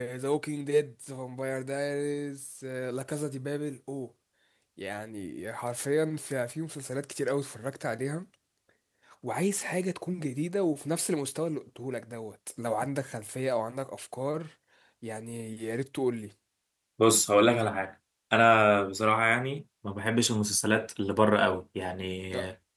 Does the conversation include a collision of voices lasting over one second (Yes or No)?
No